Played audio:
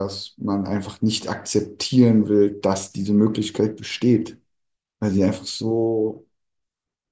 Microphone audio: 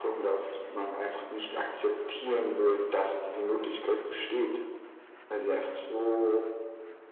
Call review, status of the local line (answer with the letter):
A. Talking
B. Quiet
B